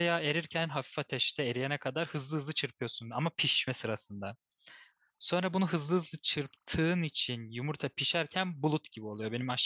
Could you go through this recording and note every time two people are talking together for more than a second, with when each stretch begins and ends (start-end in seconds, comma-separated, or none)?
none